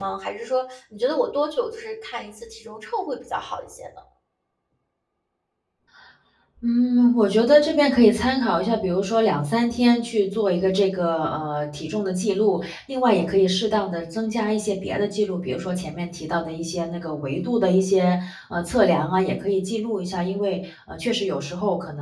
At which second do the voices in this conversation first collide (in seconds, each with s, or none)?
none